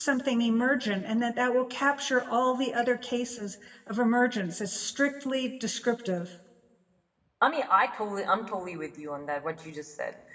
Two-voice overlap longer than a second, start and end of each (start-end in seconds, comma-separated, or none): none